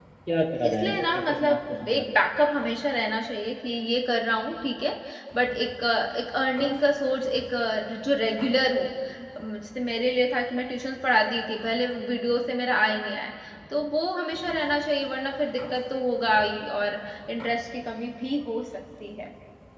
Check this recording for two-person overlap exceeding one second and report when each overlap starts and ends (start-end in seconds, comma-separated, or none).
0.6-2.2